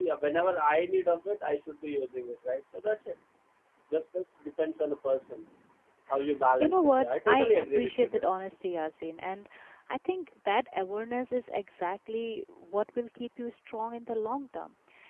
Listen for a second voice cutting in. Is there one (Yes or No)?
Yes